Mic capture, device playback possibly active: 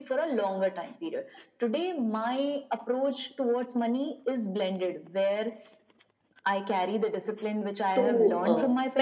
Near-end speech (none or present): present